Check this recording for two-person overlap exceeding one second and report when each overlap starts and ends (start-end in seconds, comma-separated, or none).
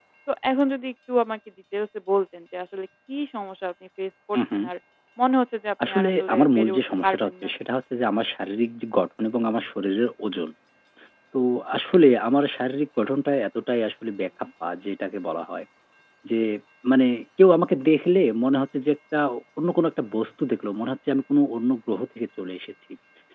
5.9-7.5